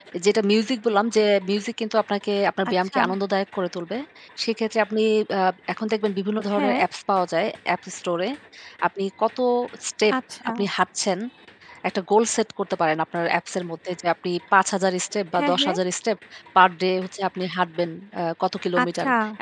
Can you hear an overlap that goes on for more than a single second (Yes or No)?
No